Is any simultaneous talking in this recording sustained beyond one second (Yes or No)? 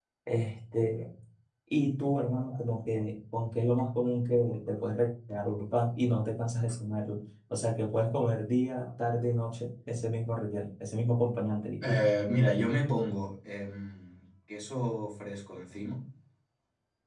No